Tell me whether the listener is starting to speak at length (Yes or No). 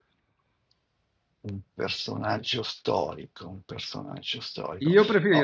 Yes